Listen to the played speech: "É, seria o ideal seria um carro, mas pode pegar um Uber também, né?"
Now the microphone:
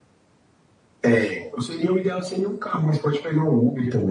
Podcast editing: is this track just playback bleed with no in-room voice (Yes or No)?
Yes